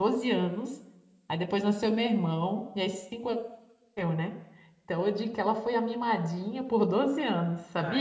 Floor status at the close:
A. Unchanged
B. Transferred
B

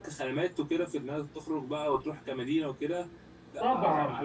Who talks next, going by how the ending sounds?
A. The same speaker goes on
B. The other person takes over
B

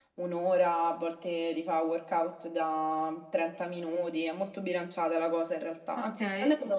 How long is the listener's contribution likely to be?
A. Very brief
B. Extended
A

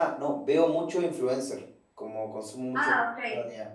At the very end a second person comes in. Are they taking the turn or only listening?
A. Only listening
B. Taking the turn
A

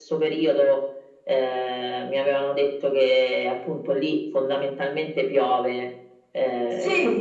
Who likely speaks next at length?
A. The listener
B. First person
A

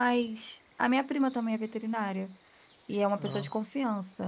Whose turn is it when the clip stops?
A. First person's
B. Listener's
A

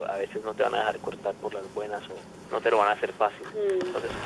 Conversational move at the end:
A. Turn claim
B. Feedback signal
A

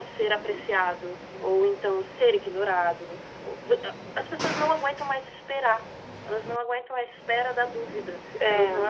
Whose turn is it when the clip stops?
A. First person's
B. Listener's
A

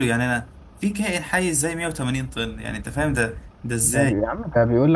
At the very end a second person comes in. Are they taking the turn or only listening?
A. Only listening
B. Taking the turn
B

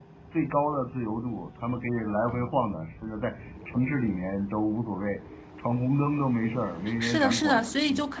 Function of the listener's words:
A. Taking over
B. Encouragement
A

